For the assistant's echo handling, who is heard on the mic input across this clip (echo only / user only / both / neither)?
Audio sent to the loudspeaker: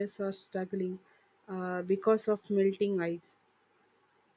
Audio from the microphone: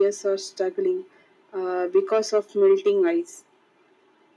echo only